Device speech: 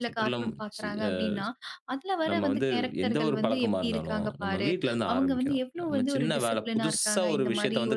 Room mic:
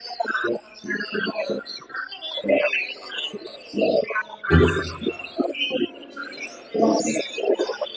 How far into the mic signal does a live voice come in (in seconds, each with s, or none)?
4.5 s